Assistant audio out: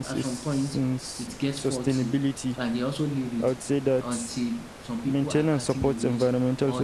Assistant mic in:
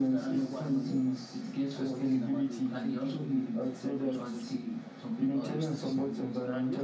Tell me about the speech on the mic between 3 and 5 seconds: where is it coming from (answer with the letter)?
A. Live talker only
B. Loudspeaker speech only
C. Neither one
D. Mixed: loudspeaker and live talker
D